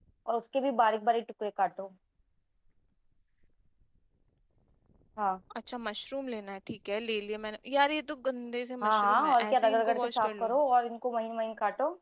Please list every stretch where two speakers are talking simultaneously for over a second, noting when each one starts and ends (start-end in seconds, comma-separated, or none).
8.8-10.5